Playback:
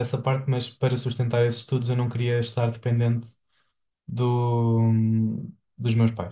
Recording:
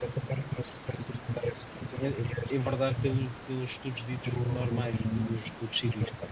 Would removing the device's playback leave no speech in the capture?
No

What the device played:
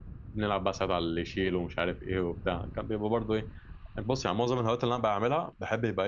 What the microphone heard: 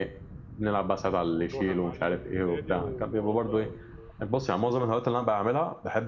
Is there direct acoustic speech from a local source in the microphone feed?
Yes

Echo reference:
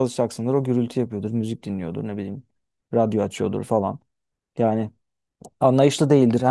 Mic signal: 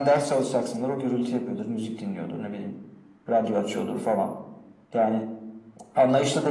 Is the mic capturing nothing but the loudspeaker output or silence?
Yes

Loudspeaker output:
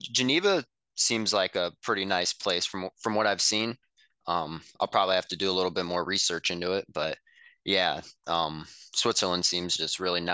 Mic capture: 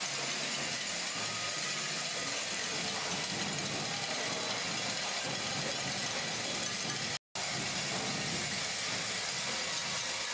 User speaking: No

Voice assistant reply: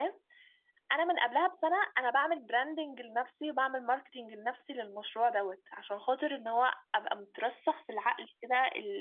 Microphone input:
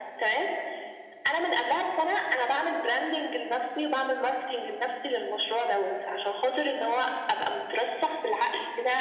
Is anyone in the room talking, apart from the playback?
No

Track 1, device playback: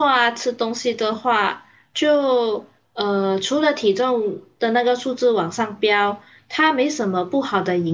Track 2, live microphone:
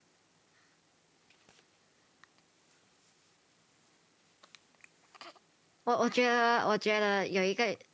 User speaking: Yes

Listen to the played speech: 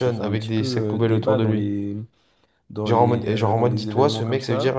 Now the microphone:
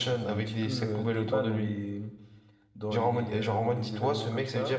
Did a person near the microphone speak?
No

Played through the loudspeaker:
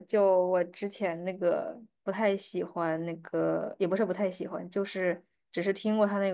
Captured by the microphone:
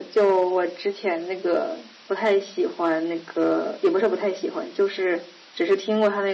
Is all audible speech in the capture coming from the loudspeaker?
Yes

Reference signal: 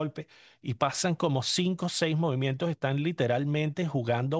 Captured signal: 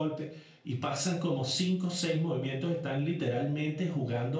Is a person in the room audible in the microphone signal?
No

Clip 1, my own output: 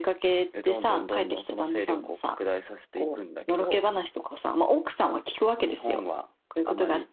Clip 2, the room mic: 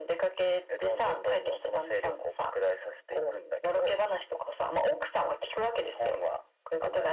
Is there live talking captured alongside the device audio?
No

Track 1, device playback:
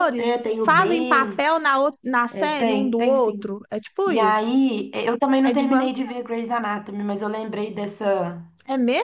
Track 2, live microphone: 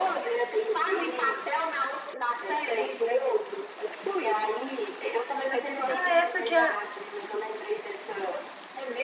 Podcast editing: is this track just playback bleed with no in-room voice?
No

